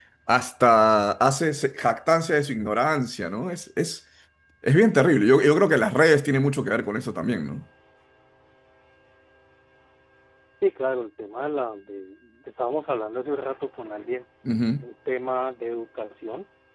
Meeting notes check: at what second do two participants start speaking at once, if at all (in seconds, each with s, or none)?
none